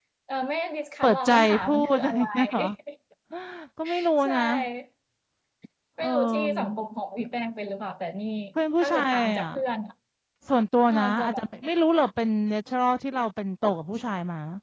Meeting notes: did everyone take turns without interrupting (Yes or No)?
No